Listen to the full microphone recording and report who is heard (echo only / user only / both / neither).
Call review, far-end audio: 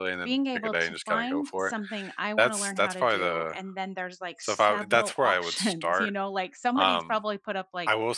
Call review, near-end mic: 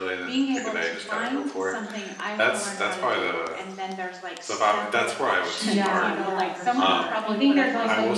both